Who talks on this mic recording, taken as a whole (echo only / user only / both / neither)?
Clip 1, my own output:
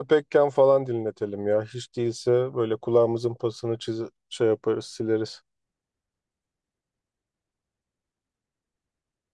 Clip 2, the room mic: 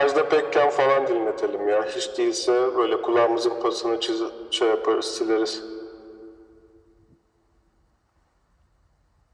echo only